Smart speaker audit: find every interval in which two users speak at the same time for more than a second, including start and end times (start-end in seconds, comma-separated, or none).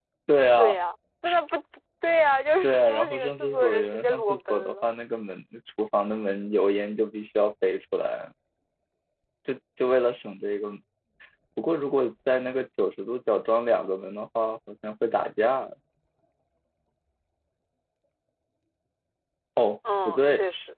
2.6-4.9